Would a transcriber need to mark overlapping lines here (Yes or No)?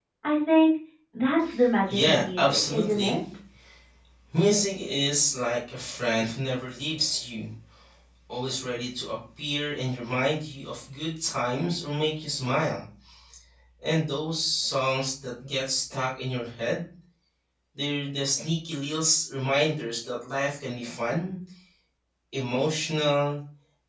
Yes